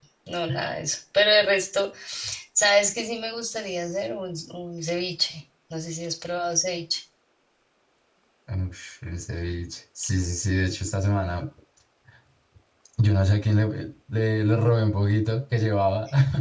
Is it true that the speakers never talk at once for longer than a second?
Yes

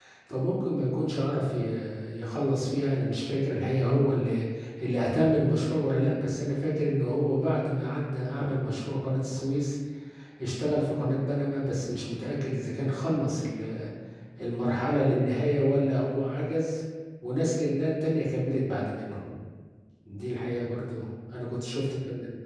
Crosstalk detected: No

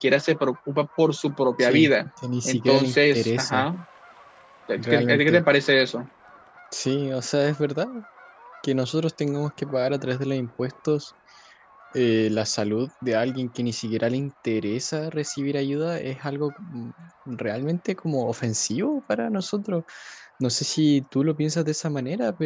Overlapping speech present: Yes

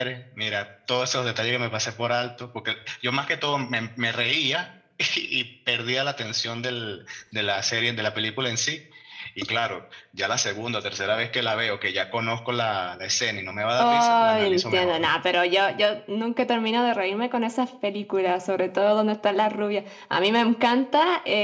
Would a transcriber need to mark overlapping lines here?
Yes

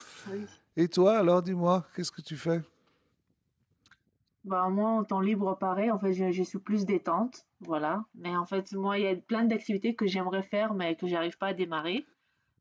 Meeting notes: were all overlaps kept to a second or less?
Yes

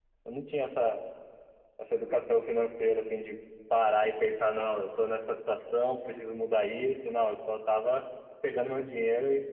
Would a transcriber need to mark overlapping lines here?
No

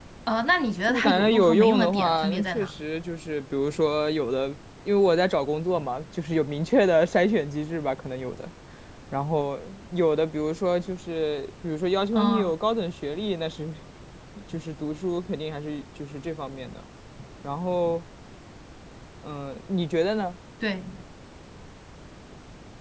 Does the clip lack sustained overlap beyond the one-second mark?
No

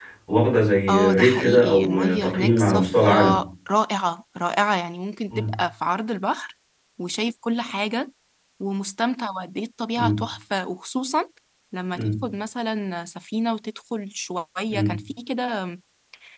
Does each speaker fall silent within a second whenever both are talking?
No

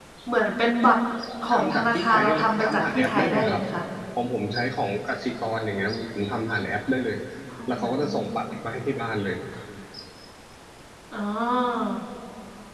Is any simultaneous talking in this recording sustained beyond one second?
Yes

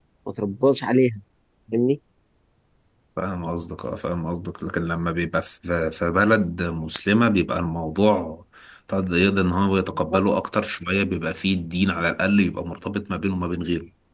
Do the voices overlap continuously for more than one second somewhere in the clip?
No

